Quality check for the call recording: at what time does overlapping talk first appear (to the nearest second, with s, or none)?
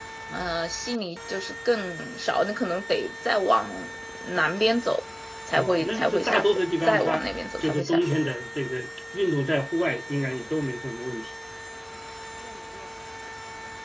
6 s